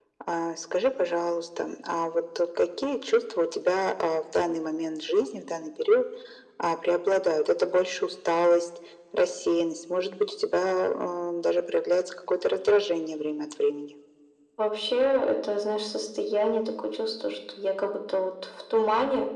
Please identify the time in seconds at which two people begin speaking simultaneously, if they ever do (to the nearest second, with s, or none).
none